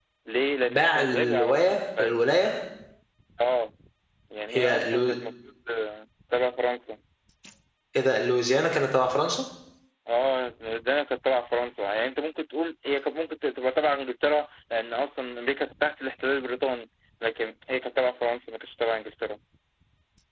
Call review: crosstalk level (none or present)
present